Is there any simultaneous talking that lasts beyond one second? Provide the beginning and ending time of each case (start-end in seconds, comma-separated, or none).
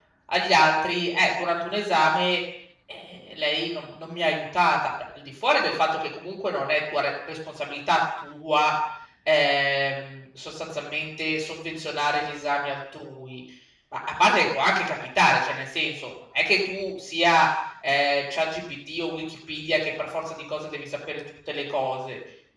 none